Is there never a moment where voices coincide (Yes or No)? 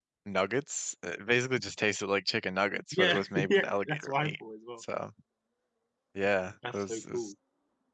No